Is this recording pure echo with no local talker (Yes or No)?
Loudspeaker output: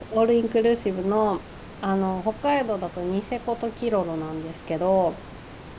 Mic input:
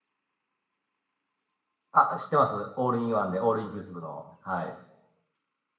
No